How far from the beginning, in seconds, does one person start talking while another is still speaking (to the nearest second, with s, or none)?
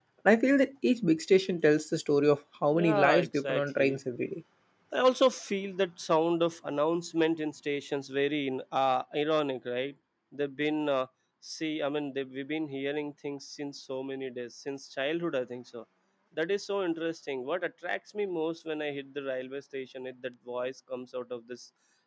3 s